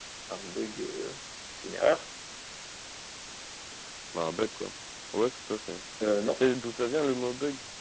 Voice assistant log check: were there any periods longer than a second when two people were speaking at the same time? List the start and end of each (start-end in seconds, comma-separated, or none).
none